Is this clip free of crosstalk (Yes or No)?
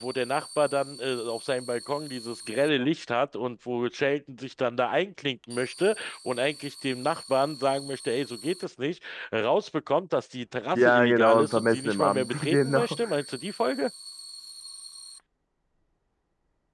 No